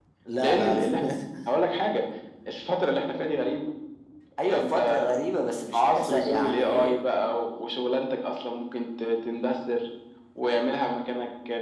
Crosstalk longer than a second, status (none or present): present